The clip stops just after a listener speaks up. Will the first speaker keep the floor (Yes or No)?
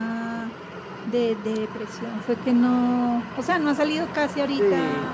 No